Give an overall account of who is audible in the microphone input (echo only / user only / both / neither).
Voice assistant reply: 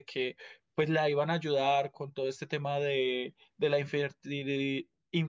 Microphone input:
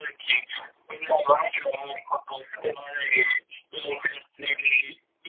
echo only